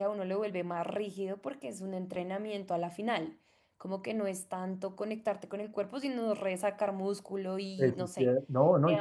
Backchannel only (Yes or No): No